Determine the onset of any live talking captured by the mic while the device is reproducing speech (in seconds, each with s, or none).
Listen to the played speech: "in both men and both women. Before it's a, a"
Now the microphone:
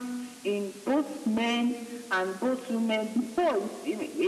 none